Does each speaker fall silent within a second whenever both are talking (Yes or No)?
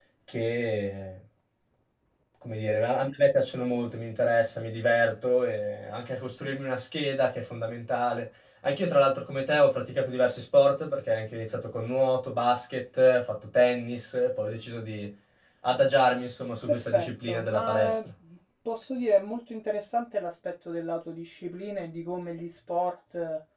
No